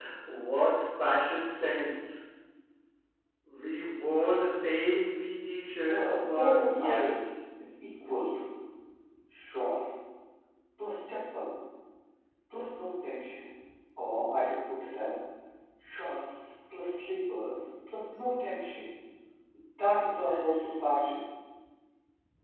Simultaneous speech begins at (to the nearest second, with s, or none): 6 s